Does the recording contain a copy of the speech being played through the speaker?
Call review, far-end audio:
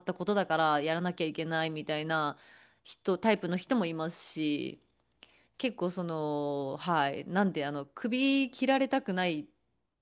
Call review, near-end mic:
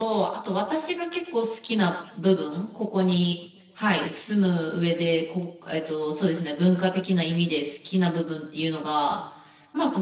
No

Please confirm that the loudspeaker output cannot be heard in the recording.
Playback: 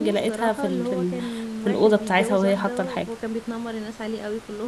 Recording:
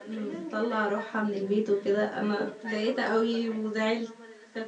No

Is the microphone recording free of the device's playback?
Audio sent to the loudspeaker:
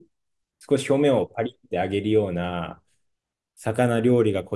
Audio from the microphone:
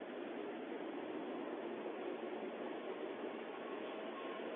Yes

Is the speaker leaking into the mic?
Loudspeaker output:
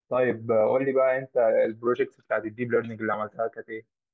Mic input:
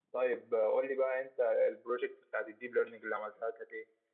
Yes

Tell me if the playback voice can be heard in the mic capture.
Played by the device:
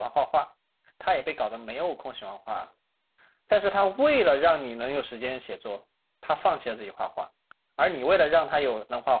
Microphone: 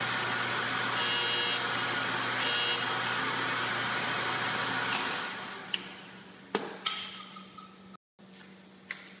No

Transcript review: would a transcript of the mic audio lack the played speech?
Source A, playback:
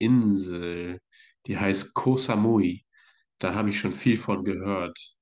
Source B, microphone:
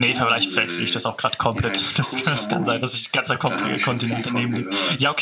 No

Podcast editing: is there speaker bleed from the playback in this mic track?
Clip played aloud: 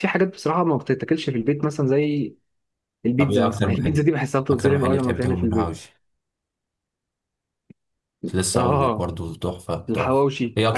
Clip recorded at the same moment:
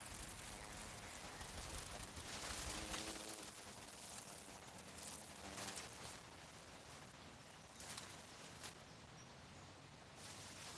No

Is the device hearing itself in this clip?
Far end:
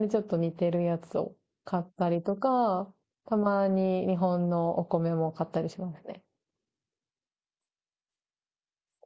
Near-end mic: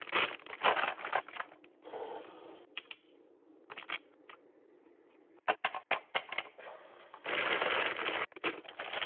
No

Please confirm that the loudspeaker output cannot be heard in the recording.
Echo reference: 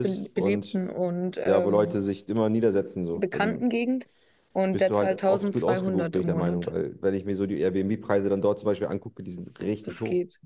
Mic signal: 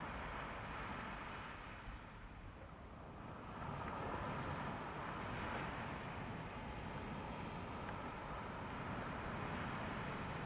Yes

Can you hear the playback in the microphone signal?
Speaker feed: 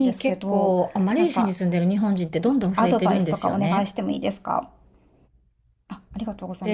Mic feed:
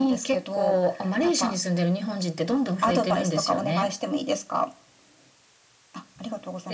Yes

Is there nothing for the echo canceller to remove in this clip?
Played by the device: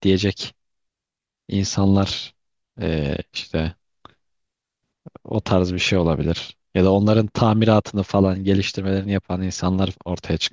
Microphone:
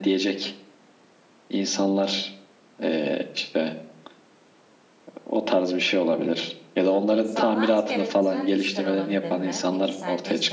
No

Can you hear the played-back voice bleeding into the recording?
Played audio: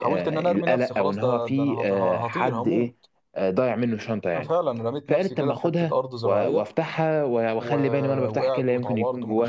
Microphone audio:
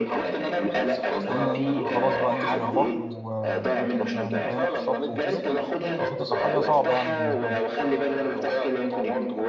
Yes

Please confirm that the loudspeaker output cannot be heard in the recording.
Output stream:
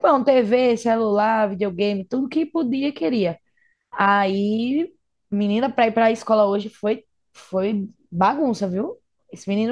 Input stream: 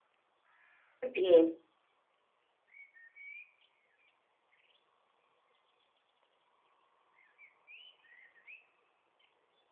Yes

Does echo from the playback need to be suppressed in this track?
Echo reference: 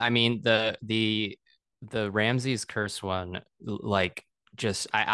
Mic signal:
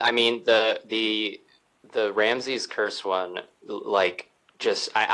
Yes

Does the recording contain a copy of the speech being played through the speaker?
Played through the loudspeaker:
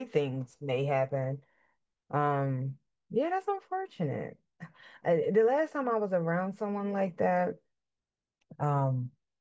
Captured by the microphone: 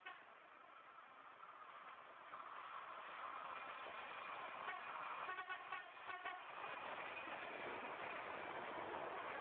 No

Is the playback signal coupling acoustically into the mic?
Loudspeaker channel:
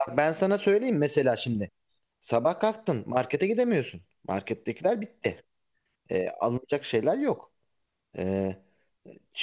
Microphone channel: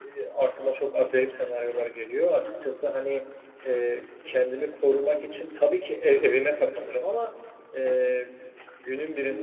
No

